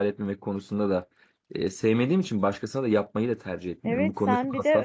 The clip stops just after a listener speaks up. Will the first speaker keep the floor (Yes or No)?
No